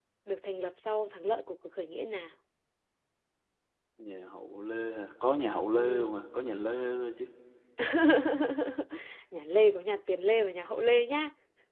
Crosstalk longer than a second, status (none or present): none